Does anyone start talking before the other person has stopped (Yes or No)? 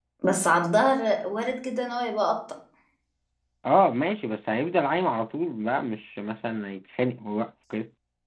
No